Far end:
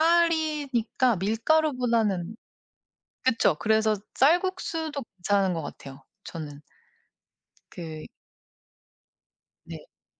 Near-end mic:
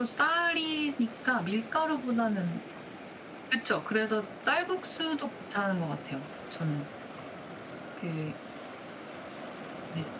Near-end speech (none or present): none